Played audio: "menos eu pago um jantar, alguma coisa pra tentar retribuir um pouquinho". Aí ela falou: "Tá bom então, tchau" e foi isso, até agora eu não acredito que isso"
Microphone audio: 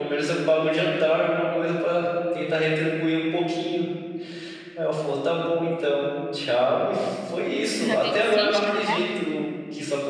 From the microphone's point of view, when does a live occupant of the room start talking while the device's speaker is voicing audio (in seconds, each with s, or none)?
7.8 s